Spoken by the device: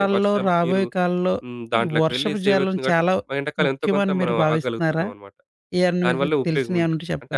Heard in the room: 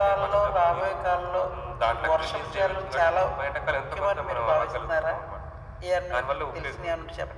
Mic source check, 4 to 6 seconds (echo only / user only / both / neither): echo only